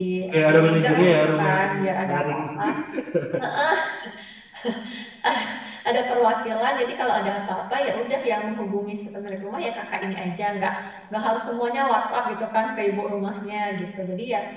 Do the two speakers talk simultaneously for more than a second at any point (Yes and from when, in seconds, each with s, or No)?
Yes, from 0.5 s